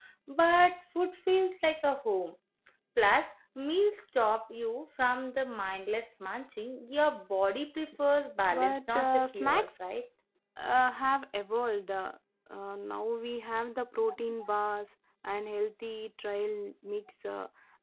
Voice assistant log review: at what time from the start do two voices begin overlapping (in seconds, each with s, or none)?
8.5 s